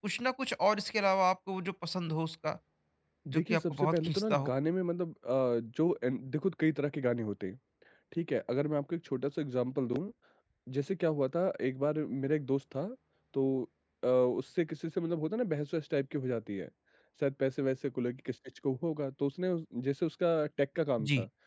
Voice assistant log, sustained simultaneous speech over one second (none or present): present